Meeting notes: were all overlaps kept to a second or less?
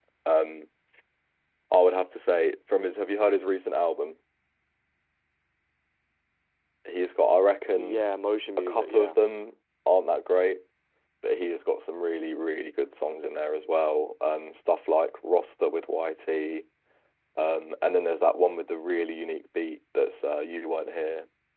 Yes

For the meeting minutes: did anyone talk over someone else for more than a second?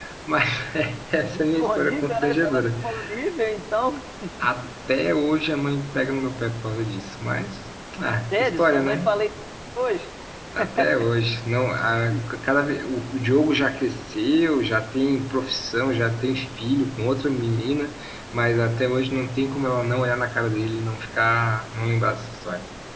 Yes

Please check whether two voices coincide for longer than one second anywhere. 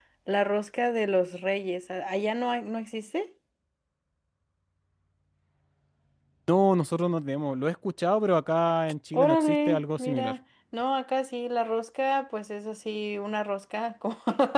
Yes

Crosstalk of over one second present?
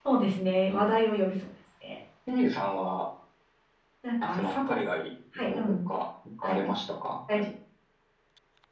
No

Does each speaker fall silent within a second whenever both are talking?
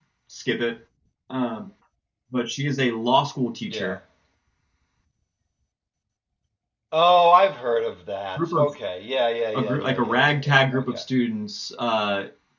No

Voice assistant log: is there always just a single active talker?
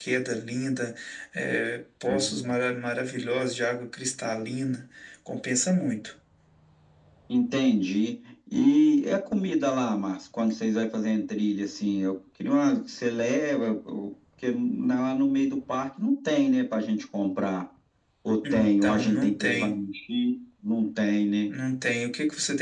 No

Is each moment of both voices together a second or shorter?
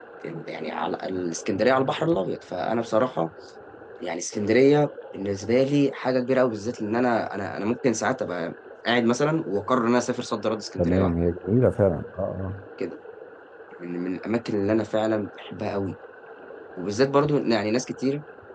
Yes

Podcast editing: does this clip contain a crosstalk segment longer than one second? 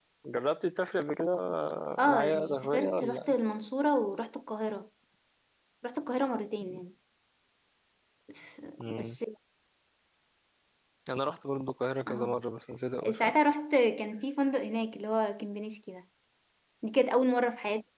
Yes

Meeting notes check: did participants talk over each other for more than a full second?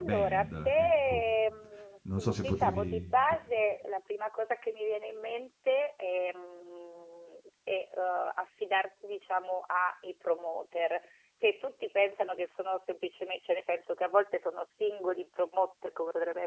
Yes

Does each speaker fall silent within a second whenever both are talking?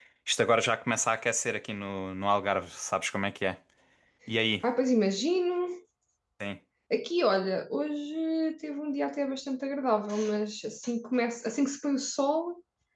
Yes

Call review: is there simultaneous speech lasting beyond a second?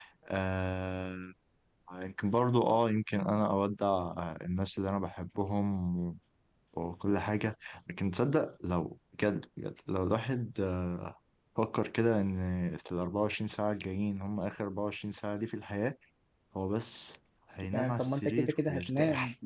Yes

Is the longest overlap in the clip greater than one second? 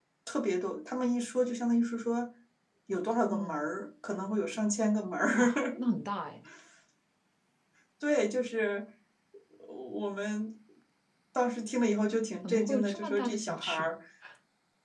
Yes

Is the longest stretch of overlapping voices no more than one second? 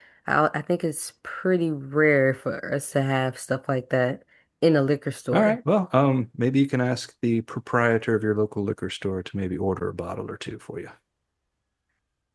Yes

